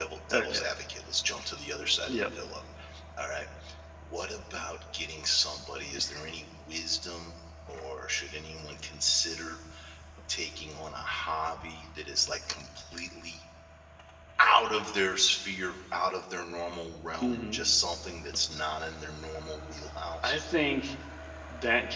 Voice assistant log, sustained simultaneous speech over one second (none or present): none